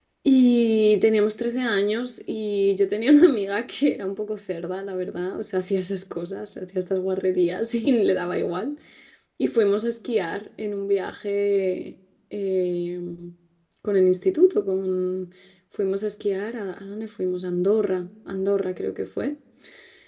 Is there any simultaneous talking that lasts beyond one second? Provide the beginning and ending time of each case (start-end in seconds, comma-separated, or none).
none